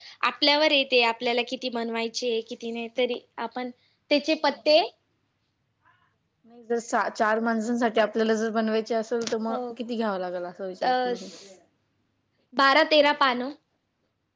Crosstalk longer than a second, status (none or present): none